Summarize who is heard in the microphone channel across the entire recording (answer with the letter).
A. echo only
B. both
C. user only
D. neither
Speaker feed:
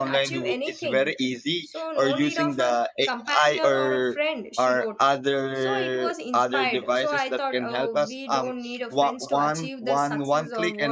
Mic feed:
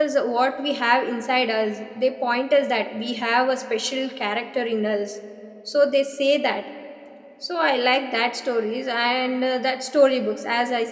C